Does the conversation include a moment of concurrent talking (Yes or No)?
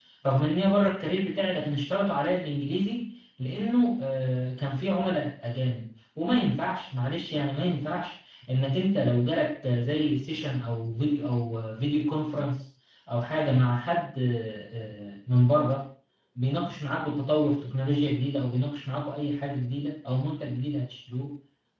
No